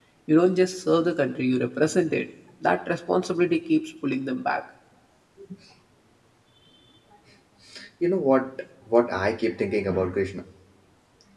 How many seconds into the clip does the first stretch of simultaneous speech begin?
none

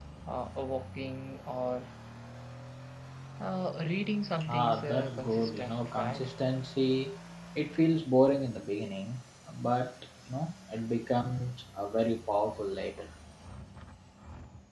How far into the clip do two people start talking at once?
4.4 s

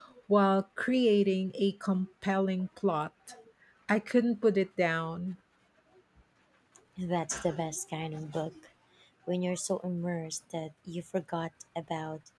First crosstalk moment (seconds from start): none

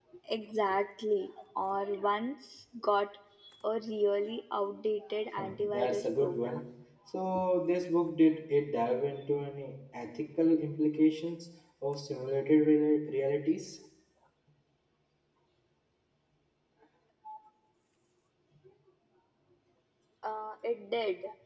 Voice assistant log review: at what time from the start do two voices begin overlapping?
5.4 s

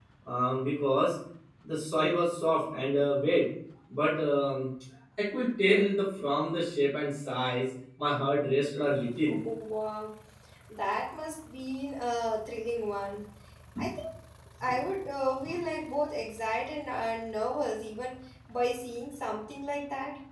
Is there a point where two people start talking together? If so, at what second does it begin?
none

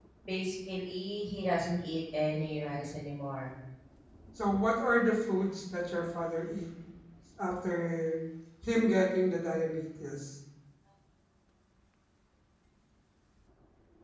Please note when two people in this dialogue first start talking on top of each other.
none

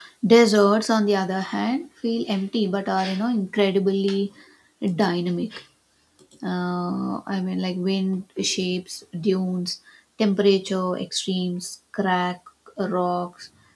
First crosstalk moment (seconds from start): none

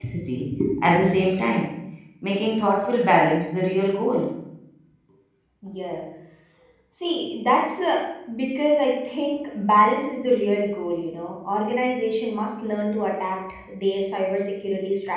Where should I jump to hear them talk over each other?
none

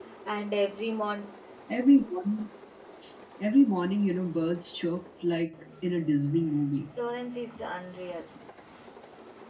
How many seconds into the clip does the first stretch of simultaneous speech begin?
none

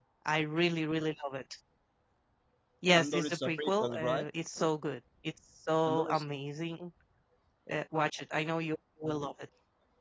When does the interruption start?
3.0 s

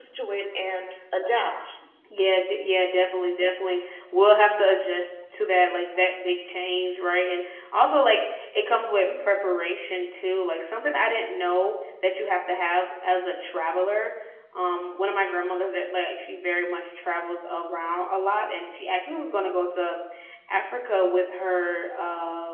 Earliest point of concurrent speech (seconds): none

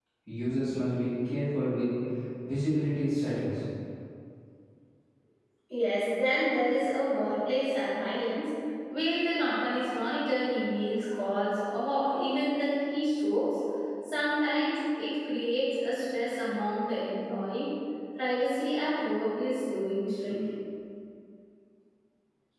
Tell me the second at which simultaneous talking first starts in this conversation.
none

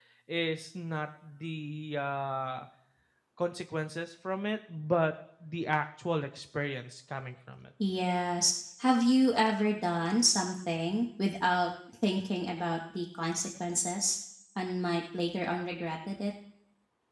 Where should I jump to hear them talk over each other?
none

